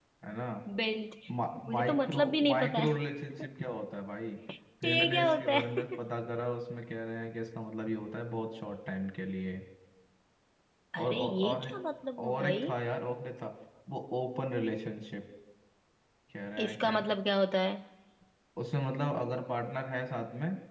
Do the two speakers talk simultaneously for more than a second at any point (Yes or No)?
Yes